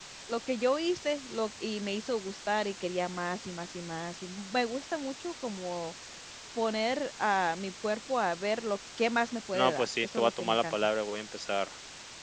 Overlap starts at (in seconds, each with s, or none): 9.5 s